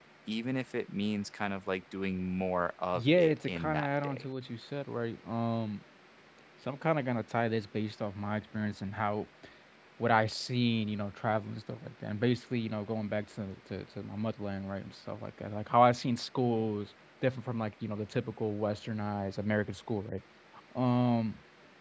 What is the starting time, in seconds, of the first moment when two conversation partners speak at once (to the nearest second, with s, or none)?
3 s